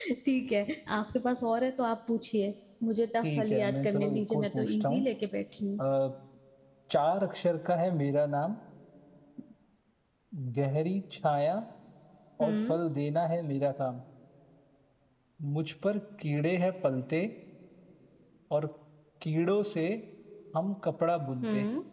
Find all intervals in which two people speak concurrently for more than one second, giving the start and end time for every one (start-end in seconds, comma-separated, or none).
3.2-5.0